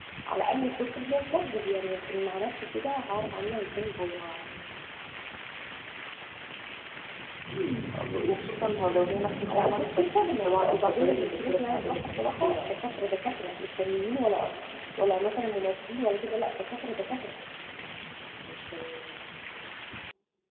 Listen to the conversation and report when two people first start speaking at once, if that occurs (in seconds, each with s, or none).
9.5 s